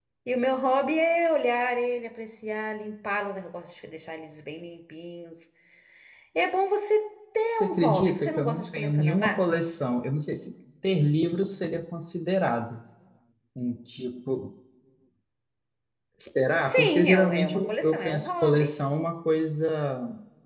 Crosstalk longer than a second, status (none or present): present